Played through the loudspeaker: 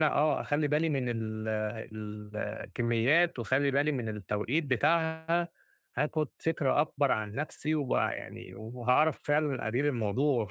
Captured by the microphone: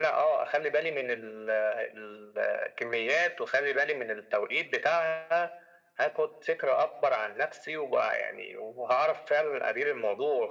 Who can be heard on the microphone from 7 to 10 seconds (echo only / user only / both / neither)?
echo only